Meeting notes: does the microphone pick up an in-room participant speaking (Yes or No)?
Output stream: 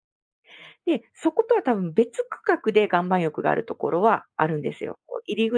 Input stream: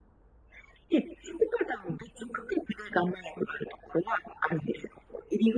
No